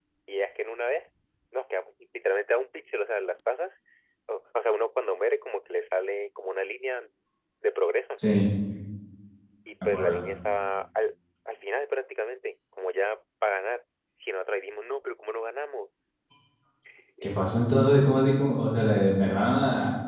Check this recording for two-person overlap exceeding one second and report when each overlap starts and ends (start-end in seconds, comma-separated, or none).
none